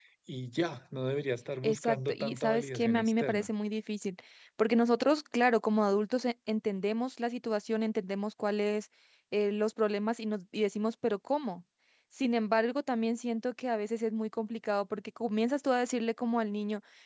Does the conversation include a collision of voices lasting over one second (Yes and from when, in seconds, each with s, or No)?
Yes, from 1.6 s